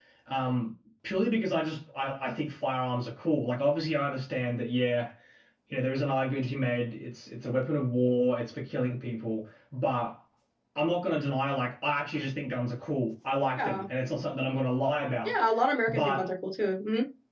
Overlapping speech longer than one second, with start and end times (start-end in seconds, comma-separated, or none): none